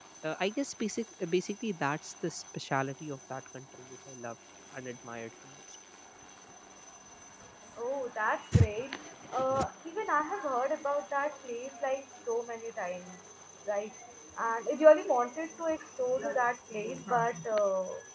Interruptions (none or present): none